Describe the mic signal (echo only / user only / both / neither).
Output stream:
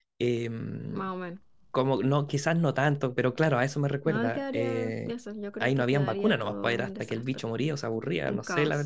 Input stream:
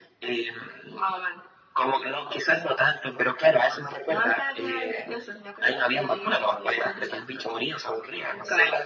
echo only